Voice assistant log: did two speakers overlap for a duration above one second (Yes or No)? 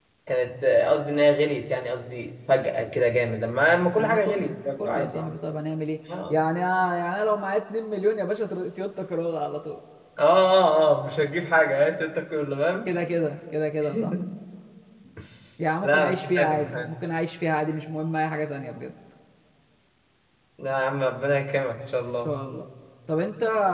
Yes